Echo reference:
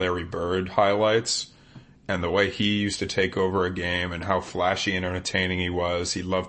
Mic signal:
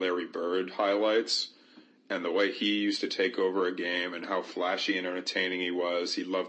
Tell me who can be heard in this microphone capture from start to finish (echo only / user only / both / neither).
echo only